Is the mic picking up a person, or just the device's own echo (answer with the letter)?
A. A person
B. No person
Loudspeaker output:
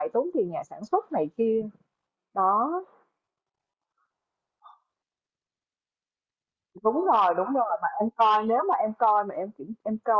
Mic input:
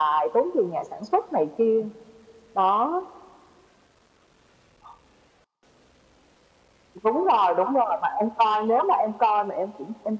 B